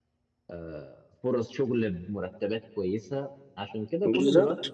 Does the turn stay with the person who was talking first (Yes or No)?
Yes